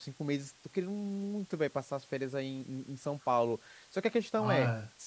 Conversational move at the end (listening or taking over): listening